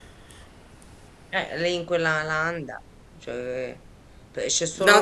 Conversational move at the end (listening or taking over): taking over